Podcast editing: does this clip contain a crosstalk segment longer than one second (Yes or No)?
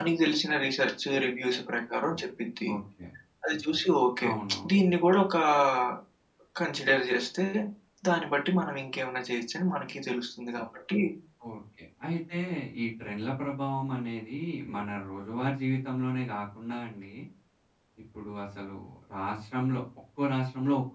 No